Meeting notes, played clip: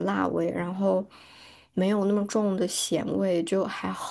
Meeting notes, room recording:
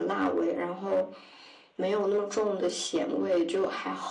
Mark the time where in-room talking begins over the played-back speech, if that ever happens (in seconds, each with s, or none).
none